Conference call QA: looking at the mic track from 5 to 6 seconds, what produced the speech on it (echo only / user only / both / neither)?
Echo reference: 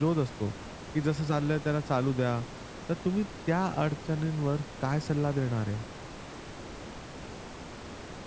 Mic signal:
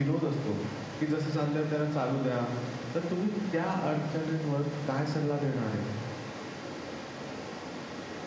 echo only